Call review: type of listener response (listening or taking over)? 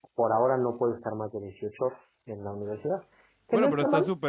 taking over